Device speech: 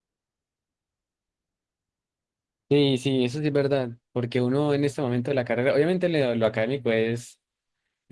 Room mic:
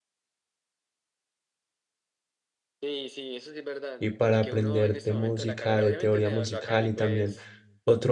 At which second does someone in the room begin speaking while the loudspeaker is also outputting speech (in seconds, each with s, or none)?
4.0 s